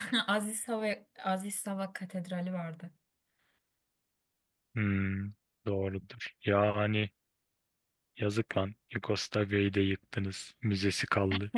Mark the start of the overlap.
none

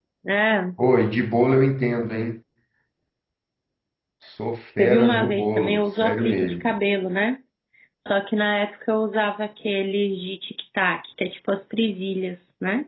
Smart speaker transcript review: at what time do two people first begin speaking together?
4.8 s

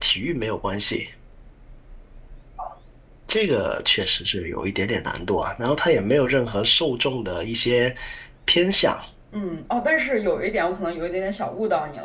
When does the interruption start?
none

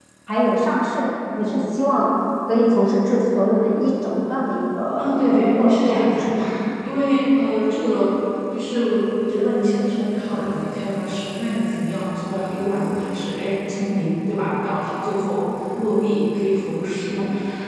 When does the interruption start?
5.0 s

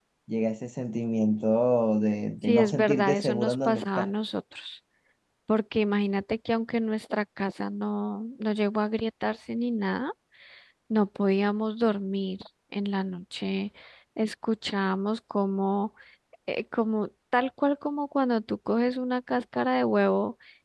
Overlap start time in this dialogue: 2.4 s

